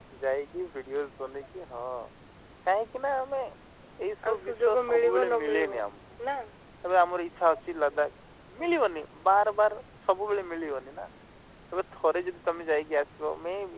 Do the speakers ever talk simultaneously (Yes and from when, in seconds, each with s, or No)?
Yes, from 4.2 s